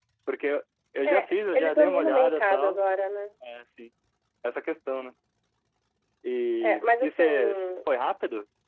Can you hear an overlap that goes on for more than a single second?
Yes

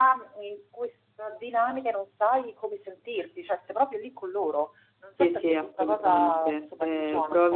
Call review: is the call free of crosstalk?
No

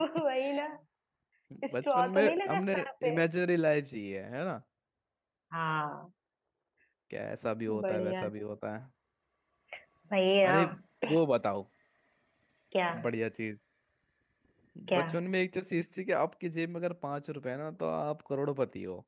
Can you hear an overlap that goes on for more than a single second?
Yes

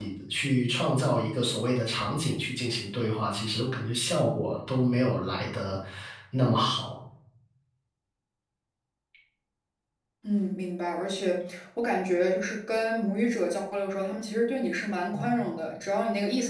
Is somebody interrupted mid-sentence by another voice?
No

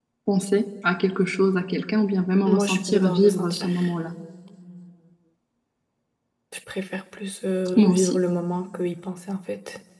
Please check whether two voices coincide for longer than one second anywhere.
Yes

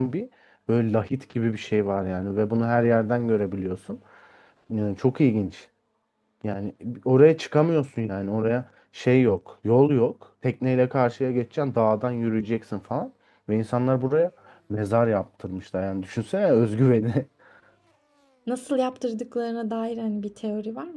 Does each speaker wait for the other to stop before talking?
Yes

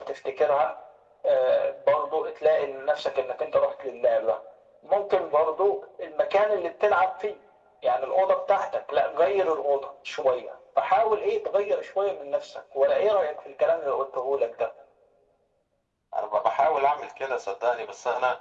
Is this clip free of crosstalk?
Yes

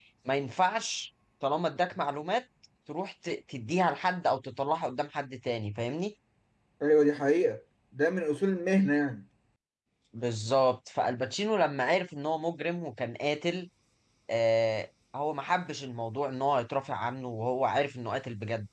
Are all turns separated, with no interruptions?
Yes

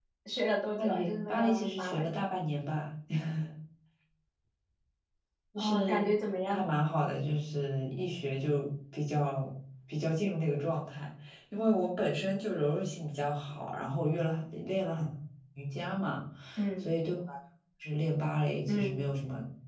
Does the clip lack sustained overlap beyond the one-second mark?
No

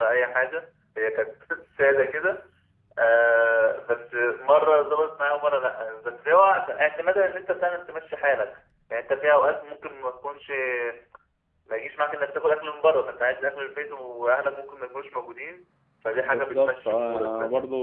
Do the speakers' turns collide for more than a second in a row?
Yes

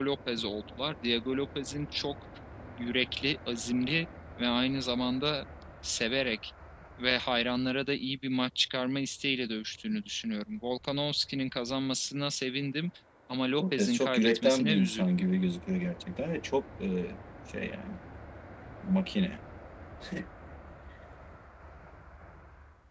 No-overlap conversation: No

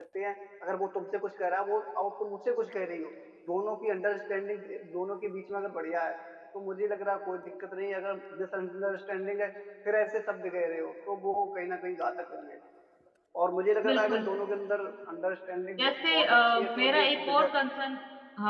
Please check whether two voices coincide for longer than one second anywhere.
Yes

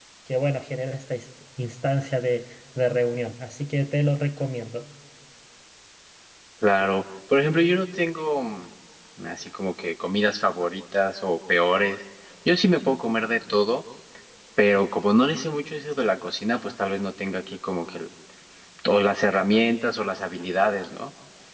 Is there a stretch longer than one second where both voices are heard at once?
No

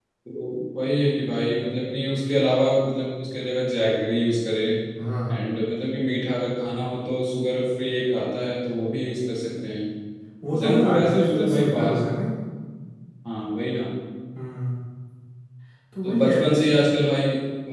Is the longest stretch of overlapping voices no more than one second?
No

